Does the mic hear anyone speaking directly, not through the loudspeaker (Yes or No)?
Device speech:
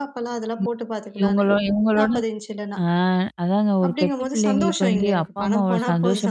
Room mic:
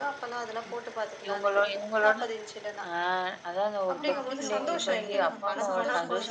Yes